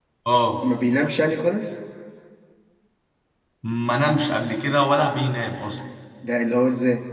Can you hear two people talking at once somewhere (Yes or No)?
No